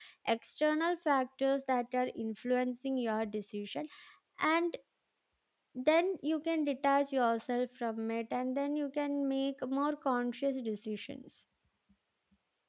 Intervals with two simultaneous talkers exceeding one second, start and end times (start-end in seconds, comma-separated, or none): none